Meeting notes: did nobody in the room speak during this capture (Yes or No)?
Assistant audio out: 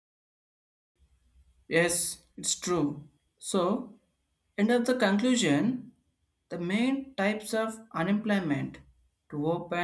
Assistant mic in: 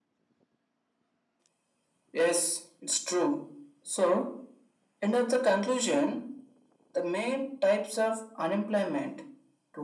Yes